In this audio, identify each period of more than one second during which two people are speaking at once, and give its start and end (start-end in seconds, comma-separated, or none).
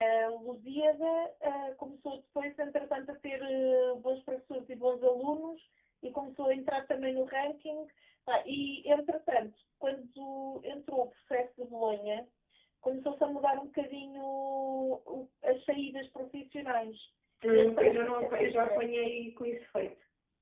17.5-18.8